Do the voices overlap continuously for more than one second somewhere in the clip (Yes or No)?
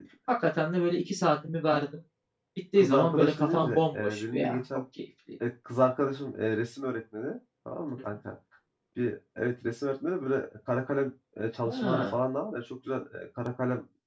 Yes